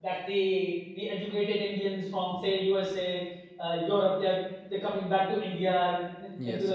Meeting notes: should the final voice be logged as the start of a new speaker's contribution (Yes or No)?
No